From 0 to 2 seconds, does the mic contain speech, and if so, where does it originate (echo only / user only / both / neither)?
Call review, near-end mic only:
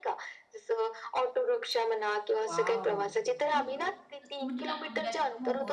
echo only